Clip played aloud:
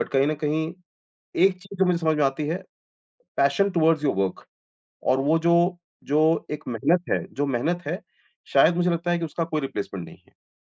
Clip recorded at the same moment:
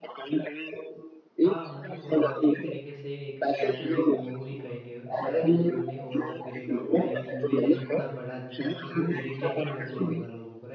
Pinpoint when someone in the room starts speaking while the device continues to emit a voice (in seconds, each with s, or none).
1.4 s